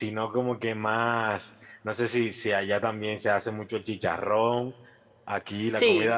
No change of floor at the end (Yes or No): Yes